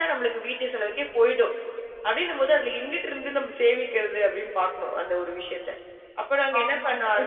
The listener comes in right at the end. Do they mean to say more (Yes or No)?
Yes